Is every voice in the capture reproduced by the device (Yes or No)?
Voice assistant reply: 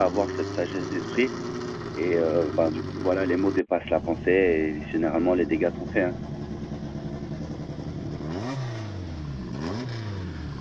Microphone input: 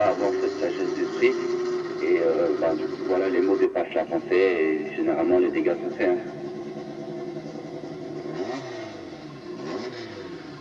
Yes